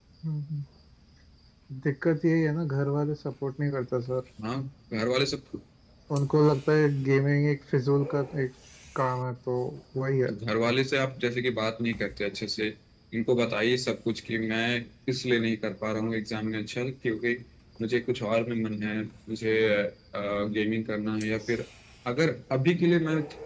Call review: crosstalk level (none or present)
none